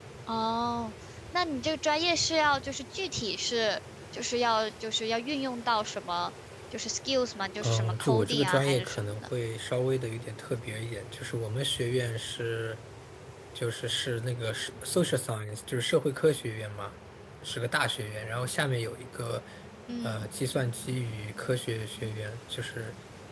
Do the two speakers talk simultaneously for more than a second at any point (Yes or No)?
Yes